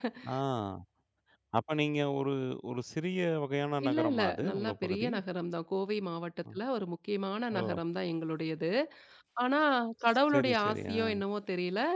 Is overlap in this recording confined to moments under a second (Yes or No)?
No